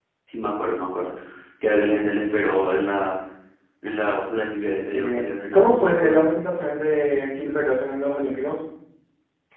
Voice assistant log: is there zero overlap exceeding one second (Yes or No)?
No